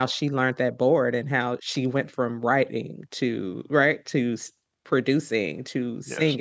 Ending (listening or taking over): listening